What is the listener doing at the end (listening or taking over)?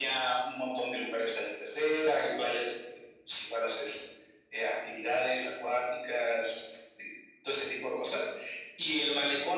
listening